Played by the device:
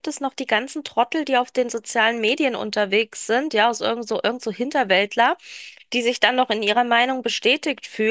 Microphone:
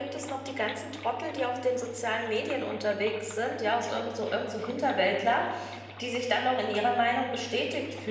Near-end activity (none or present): none